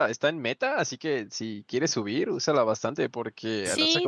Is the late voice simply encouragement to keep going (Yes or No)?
No